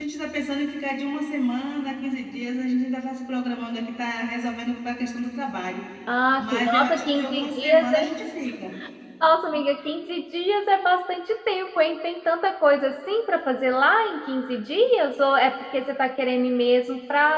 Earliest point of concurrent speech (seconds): 6.4 s

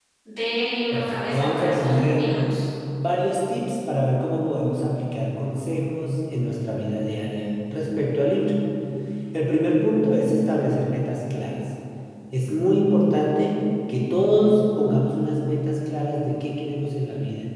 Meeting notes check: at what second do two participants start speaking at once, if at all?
0.9 s

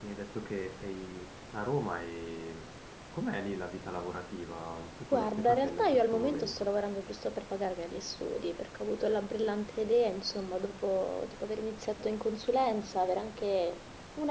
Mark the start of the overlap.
5.1 s

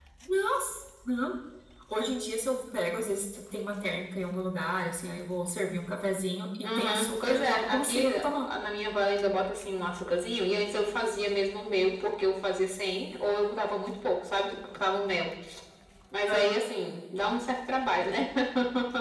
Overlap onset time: 6.6 s

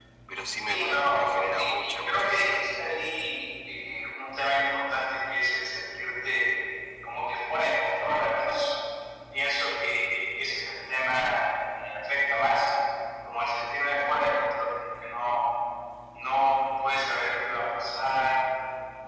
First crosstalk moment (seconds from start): 0.7 s

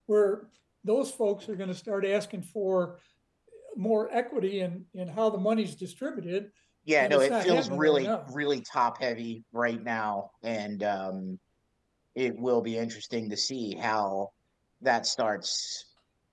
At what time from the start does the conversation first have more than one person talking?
7.0 s

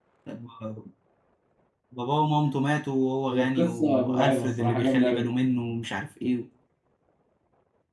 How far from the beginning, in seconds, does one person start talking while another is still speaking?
3.3 s

